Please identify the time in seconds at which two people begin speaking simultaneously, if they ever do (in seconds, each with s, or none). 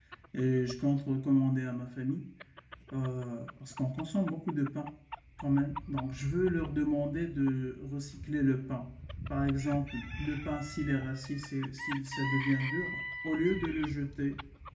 none